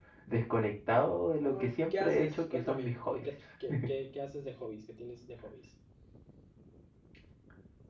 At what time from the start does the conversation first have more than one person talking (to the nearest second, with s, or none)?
1 s